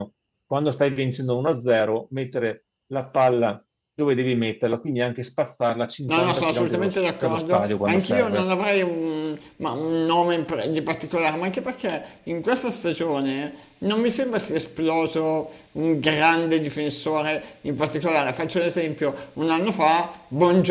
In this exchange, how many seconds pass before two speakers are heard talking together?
6 s

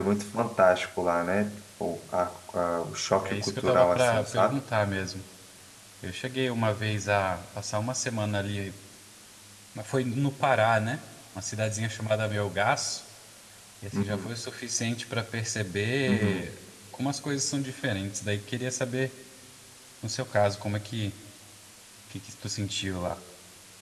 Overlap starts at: 3 s

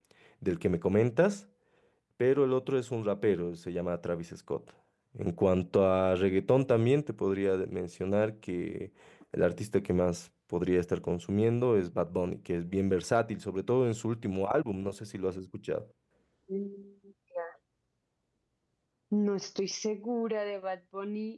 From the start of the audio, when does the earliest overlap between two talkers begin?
none

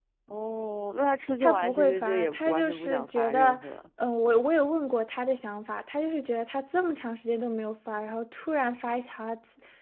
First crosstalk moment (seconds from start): 1 s

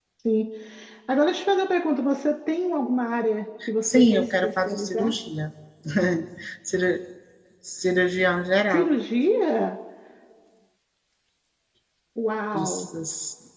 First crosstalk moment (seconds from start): 4 s

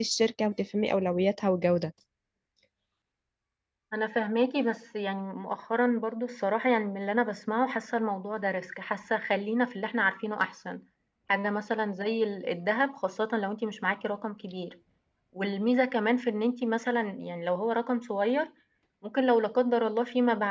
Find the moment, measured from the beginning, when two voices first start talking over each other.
none

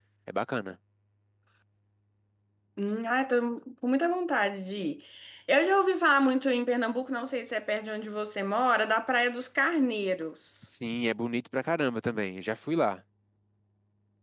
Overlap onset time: none

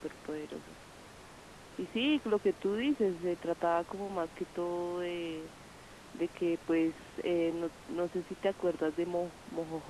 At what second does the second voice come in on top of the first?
none

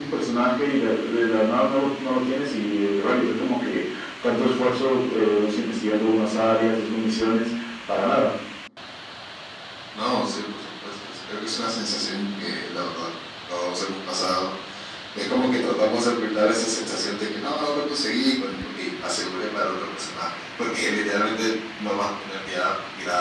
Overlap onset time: none

